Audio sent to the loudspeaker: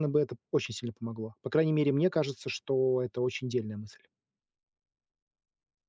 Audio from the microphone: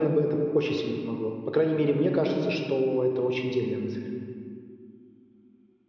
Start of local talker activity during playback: none

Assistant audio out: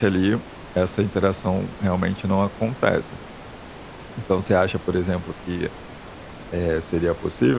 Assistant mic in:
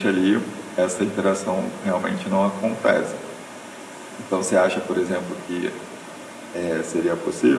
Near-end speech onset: none

